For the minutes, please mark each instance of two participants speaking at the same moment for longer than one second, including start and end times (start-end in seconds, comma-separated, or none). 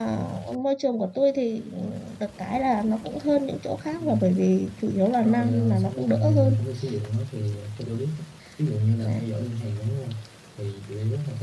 5.2-6.5